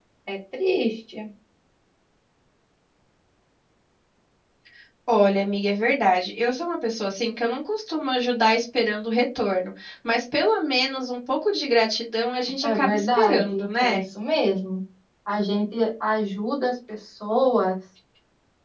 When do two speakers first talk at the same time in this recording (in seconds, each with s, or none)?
12.6 s